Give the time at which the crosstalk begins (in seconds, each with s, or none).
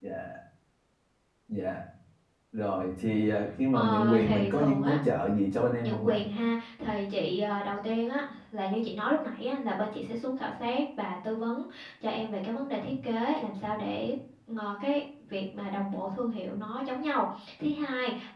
3.7 s